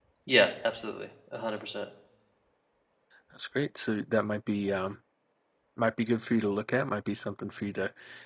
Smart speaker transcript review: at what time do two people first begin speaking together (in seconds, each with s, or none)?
none